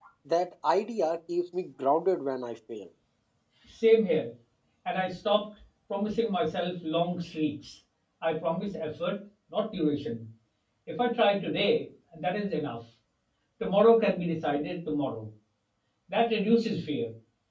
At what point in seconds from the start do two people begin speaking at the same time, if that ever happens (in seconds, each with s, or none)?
none